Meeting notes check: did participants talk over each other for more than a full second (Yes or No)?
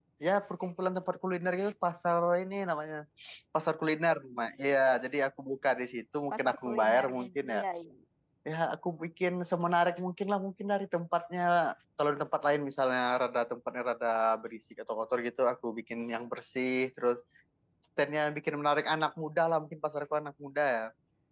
Yes